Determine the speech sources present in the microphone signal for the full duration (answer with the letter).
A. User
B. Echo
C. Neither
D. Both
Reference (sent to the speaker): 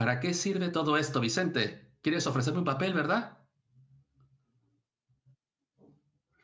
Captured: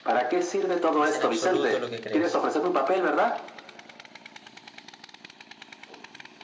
D